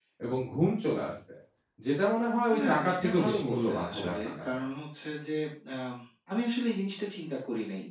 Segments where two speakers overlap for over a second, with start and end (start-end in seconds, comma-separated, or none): 2.6-4.3